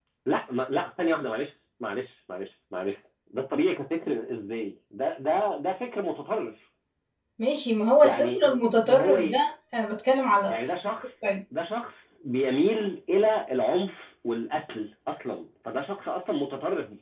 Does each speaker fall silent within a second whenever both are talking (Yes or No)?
No